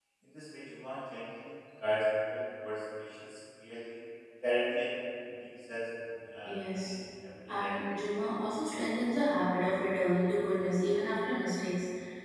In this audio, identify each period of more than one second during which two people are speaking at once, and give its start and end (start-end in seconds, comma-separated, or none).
none